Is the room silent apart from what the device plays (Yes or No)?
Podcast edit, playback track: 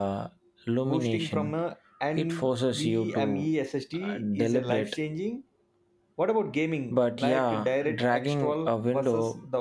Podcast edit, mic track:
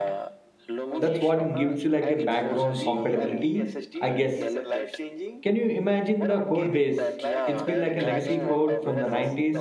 No